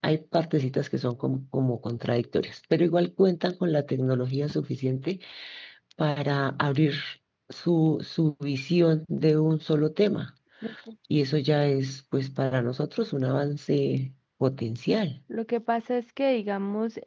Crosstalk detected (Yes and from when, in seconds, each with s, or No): No